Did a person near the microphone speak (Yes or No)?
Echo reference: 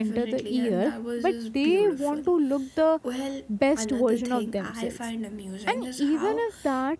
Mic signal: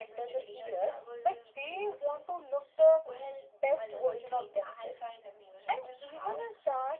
No